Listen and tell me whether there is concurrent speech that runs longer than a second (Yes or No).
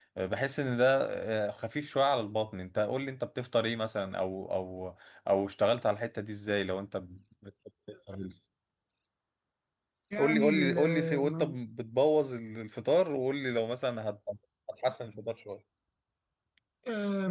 Yes